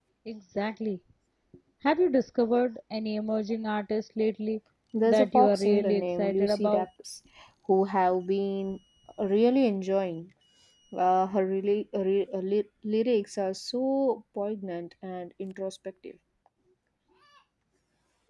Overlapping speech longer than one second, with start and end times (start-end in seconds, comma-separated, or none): 5.0-6.9